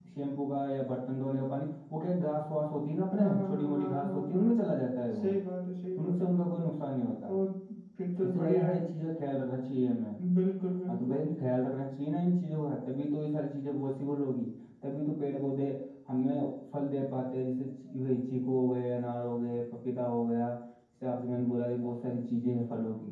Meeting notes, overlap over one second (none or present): present